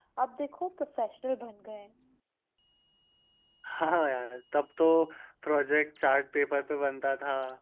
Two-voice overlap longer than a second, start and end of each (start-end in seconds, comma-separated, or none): none